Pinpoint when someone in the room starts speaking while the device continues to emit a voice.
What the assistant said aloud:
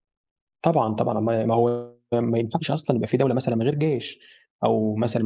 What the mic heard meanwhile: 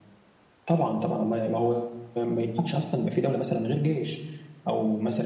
none

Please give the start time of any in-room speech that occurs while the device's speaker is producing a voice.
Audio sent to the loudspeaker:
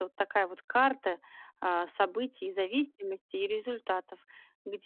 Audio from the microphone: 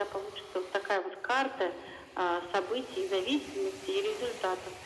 none

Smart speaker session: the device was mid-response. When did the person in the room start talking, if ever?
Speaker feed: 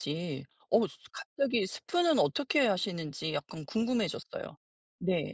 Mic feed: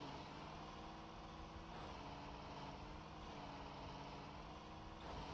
none

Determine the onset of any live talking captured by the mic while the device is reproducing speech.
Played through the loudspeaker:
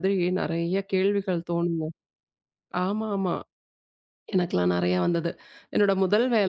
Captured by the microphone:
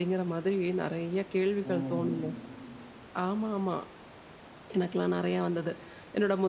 2 s

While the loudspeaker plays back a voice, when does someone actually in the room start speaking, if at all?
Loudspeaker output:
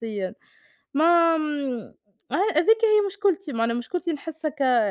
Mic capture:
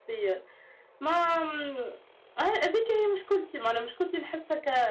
none

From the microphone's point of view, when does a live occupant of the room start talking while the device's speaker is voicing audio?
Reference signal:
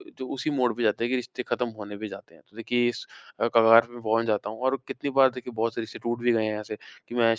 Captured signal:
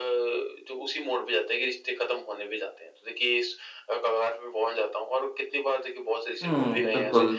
6 s

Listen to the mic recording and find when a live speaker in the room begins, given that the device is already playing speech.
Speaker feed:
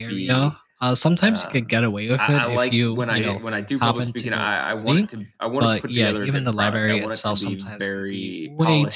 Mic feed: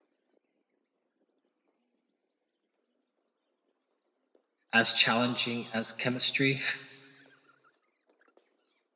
5 s

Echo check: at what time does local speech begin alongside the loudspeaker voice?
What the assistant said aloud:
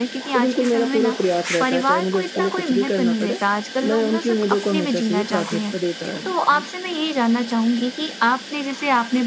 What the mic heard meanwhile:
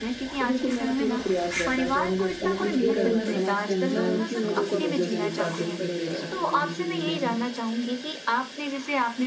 3 s

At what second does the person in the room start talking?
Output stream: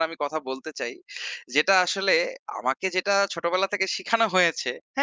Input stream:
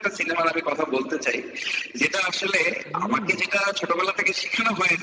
3 s

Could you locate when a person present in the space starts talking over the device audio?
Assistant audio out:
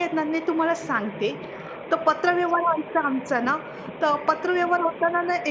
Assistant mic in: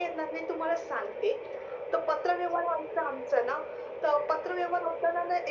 none

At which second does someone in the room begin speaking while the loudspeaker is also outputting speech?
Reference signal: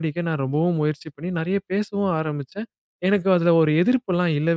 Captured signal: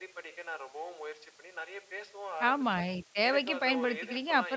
2 s

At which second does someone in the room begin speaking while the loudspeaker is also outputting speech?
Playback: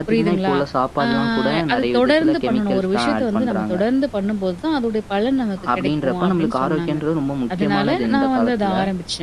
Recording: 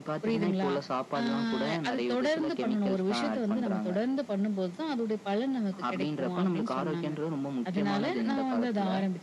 none

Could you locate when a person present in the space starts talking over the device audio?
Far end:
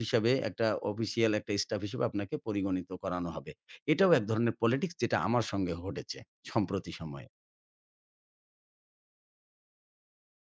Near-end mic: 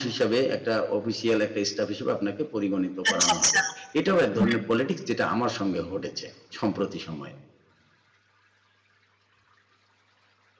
3 s

